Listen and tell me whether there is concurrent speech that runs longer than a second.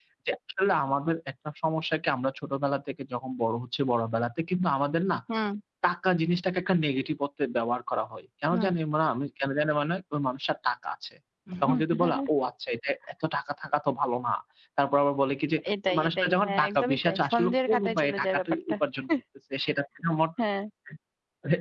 Yes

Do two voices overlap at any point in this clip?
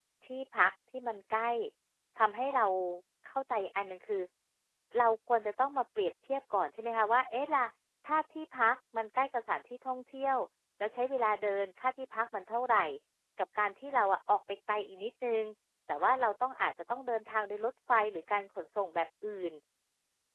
No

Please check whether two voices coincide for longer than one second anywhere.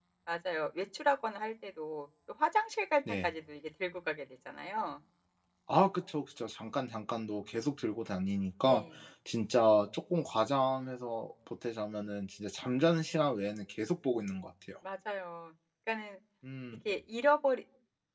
No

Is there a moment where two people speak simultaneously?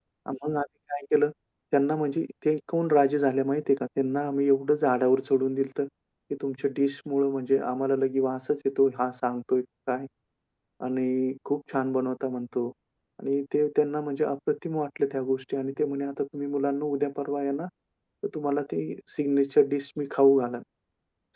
No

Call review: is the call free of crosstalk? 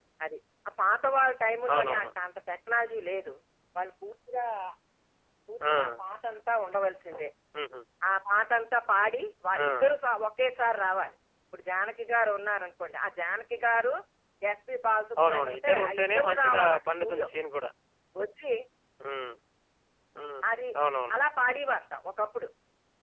No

